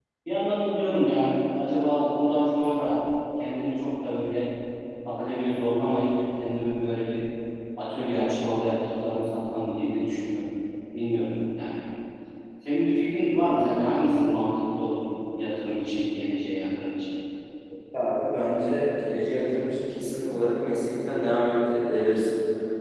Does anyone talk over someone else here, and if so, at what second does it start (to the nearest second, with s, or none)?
none